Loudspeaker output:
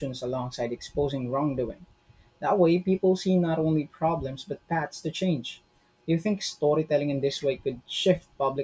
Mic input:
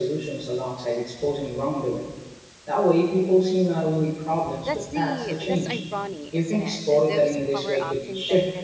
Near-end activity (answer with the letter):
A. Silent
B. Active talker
B